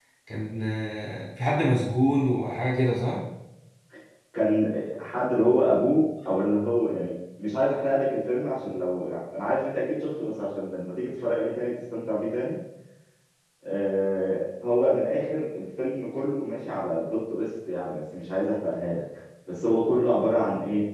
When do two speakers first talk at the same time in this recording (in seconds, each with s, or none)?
none